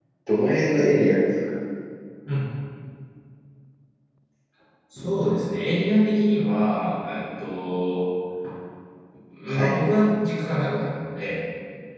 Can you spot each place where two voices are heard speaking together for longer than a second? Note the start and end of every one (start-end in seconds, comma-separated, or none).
none